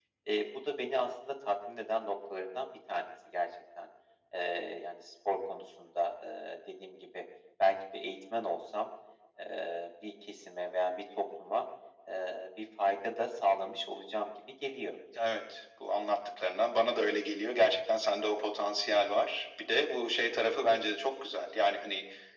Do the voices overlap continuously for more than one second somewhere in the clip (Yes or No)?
No